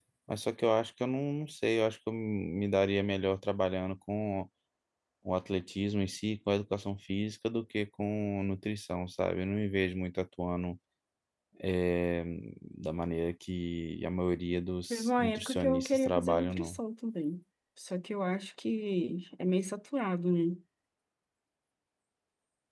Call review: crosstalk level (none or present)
present